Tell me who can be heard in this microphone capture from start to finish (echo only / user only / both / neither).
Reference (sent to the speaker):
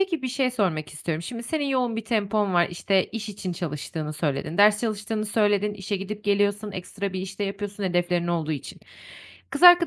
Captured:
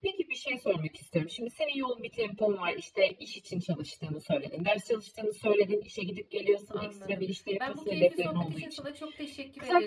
both